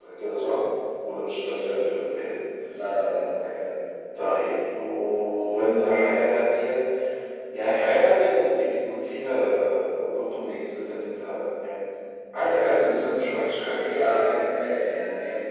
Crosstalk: none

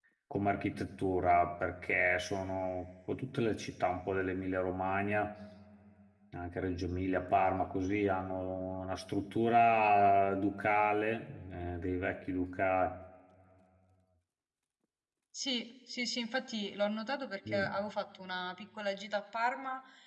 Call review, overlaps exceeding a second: none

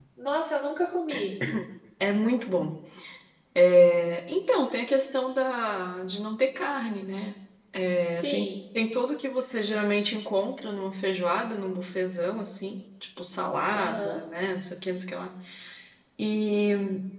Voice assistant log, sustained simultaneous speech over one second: none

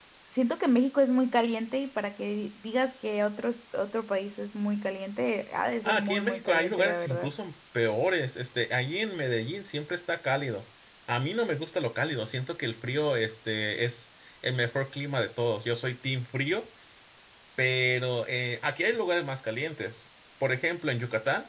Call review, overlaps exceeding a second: present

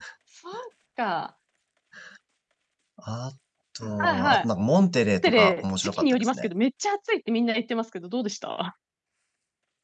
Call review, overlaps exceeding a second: present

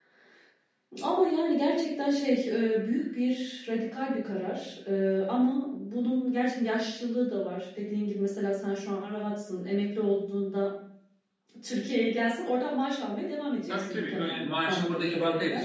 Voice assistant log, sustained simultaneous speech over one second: present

